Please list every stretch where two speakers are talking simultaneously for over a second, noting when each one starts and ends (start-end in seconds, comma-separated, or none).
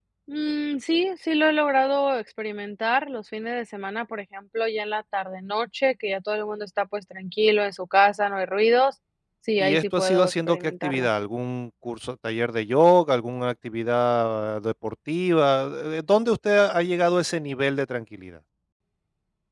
9.6-11.1